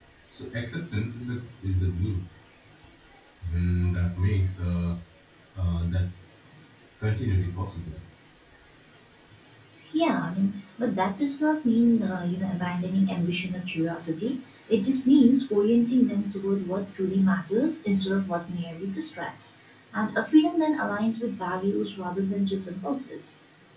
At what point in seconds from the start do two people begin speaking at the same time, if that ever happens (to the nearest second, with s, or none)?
none